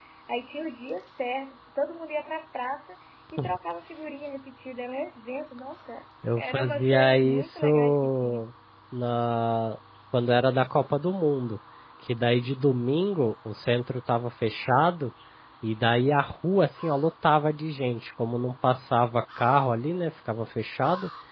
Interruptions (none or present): present